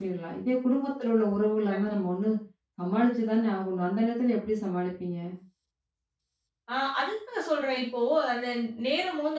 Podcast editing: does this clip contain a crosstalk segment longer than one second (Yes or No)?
No